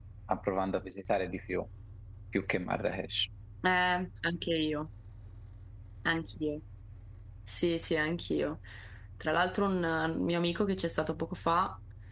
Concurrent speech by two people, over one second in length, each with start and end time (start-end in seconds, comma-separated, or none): none